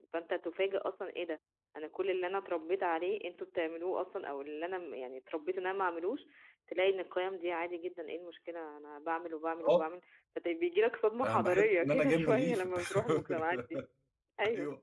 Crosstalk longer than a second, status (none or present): present